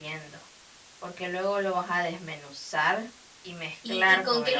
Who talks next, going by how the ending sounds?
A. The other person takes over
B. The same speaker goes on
A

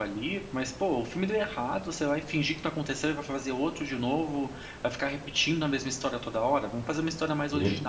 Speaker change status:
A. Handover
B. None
B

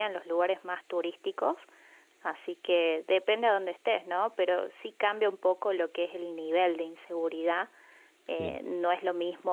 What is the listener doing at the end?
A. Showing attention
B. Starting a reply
A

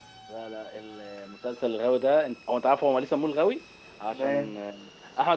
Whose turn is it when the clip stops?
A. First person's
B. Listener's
A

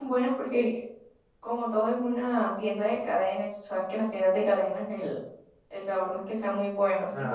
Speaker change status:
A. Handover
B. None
A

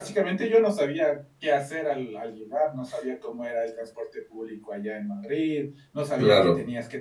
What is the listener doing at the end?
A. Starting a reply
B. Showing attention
B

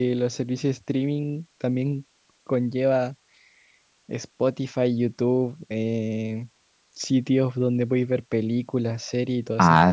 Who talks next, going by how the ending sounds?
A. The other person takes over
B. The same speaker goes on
A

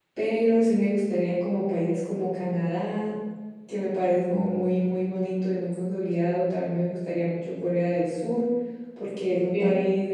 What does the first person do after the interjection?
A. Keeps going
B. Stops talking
A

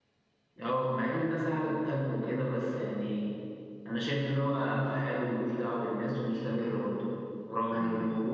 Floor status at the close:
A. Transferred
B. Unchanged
B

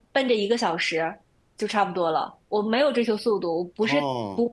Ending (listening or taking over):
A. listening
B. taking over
A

